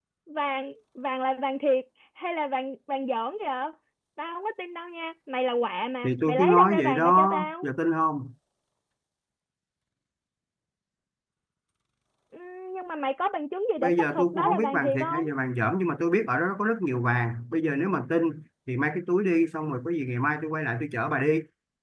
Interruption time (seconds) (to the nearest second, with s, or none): 6 s